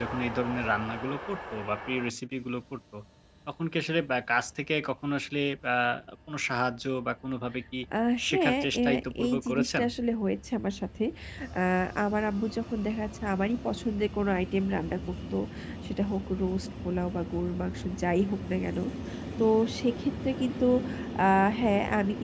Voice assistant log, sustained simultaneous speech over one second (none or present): present